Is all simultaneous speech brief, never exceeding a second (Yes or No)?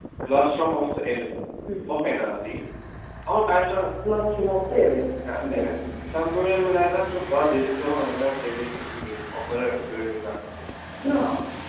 Yes